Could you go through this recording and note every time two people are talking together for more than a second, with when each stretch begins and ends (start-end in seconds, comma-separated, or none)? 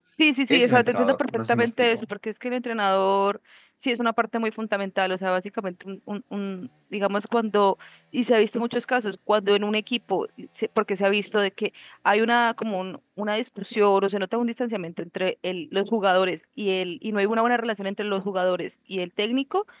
0.5-2.0